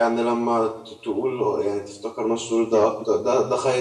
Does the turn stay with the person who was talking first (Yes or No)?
Yes